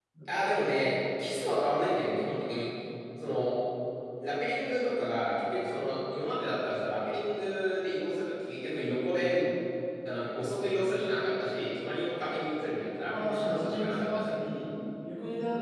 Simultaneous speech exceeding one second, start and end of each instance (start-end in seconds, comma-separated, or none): 13.0-14.3